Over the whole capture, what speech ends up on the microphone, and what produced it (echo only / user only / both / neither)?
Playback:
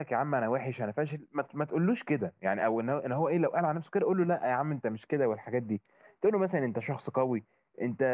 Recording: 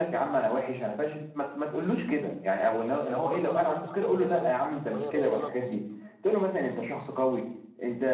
both